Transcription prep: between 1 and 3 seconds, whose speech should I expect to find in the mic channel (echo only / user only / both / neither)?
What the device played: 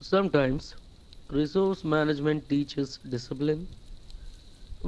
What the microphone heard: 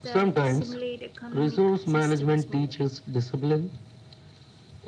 both